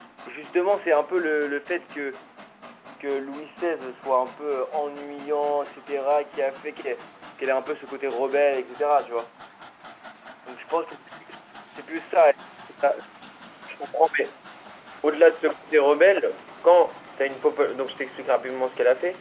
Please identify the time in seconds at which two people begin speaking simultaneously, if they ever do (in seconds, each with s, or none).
none